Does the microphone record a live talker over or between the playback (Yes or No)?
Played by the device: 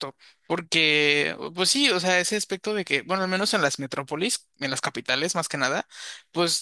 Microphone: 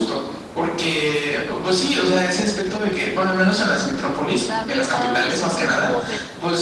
Yes